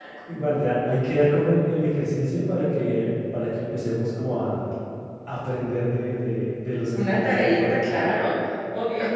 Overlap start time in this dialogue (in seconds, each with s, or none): 6.9 s